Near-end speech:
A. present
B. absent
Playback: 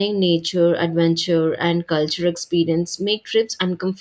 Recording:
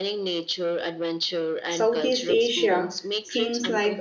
A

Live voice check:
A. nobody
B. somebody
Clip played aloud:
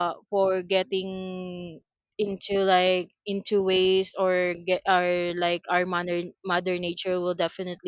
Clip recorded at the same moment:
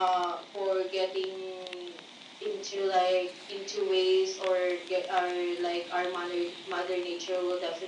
A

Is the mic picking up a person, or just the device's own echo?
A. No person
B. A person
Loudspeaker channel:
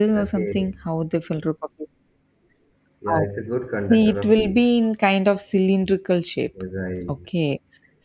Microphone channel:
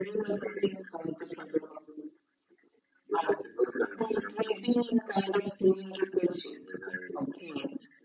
A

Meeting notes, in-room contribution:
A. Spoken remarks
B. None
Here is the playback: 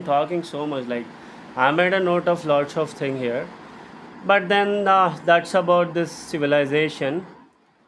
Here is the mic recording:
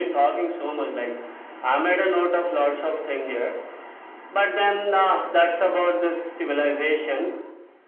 B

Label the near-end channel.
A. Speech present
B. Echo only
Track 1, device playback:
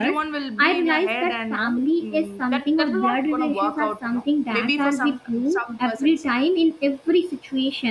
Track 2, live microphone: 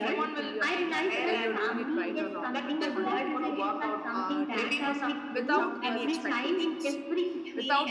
A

